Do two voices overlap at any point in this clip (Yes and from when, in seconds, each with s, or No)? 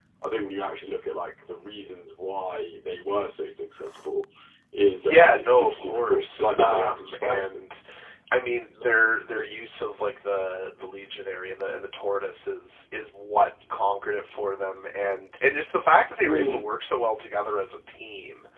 Yes, from 5.0 s